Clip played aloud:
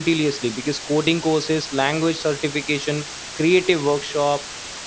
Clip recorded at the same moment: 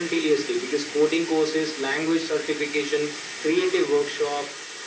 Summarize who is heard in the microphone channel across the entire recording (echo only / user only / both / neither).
echo only